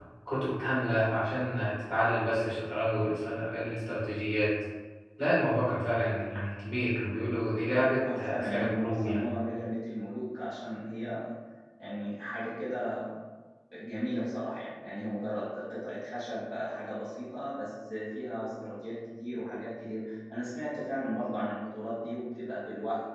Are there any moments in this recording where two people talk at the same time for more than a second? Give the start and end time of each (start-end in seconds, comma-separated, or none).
8.0-9.3